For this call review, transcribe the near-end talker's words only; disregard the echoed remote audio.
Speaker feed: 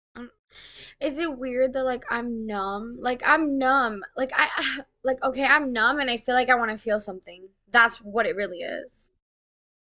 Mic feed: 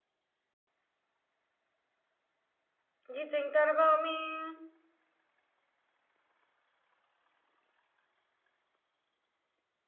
You think that about me?

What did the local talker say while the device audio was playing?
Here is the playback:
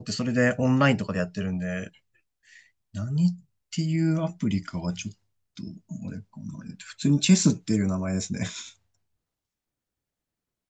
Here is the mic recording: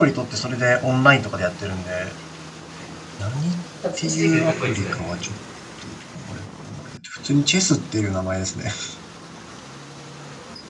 恥ずかしいけどかっこいいですね。

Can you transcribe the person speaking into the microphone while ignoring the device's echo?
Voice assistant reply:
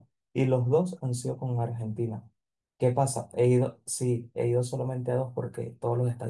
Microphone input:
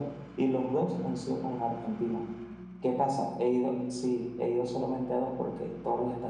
none

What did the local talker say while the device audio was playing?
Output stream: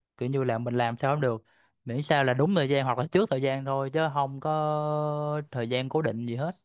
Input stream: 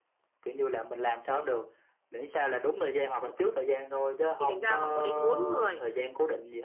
thì thành ra họ có đến bốn người

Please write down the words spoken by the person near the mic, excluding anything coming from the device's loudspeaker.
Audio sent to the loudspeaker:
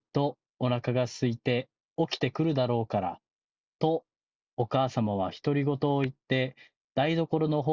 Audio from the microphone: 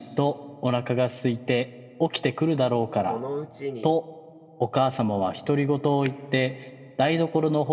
そのうちに

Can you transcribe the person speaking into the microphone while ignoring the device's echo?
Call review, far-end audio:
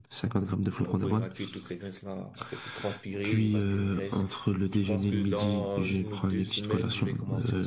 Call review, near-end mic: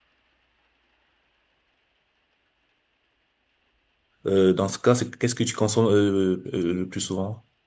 euh, dans ce cas, c'est, qu'est-ce que tu consommes euh, euh, le plus souvent?

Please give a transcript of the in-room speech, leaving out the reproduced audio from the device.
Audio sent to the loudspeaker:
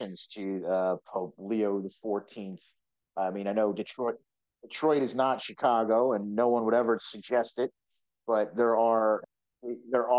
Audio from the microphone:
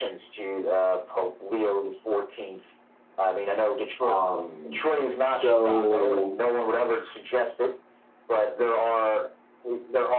um so

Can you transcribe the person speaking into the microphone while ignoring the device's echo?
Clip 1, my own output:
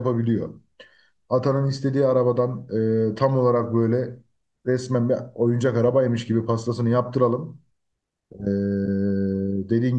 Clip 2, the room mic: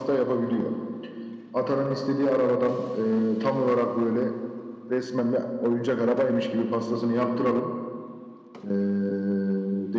none

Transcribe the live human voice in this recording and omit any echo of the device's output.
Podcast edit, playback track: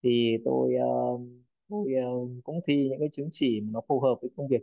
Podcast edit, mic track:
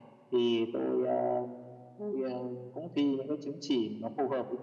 none

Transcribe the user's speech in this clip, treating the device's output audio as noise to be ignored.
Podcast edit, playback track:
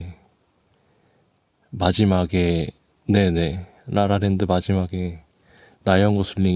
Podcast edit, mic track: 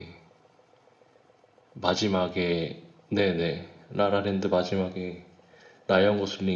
none

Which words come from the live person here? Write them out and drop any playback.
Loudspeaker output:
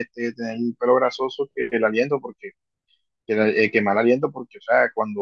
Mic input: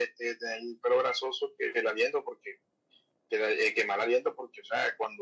none

